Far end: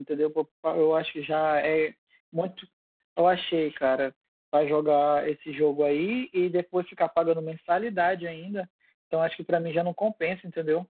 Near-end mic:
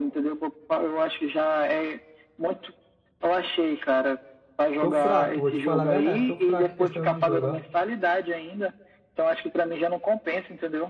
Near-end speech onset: 5 s

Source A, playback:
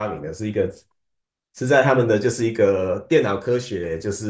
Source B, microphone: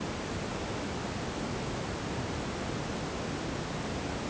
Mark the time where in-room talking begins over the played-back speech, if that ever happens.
none

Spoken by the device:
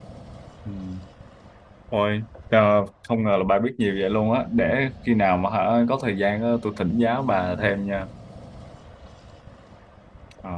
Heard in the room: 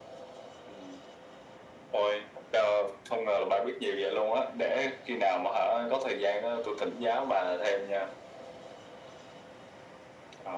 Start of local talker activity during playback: none

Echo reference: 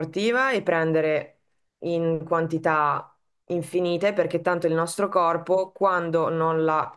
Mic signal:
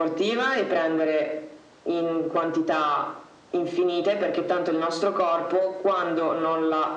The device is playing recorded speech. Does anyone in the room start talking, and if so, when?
none

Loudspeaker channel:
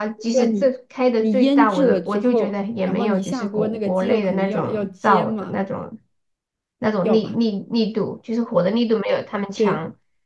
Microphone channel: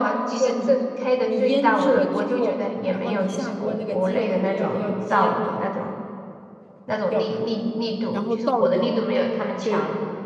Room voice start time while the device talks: 8 s

